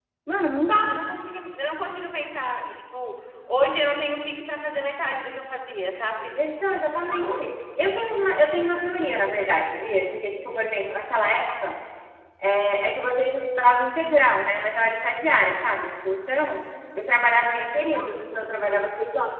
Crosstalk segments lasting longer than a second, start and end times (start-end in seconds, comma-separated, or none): none